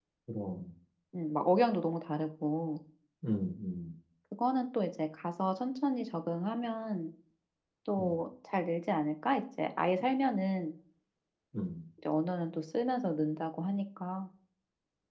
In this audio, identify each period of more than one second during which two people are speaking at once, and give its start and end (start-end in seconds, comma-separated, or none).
none